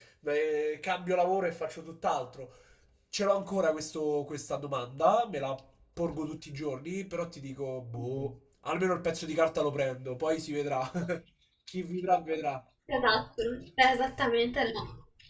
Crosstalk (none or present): none